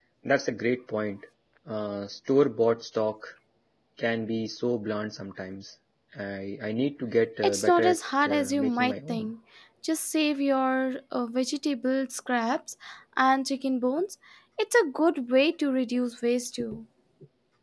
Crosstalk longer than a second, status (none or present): present